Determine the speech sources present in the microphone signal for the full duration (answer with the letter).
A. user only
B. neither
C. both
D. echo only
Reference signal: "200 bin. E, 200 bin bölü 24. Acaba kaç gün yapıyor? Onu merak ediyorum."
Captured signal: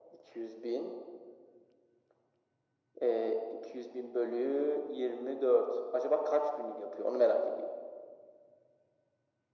D